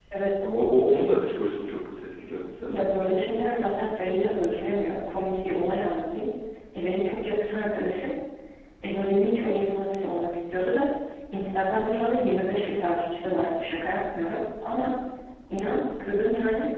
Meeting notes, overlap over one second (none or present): none